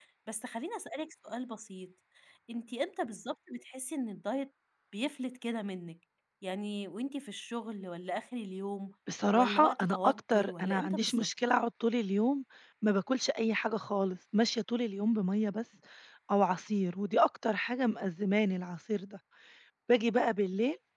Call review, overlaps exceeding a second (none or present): present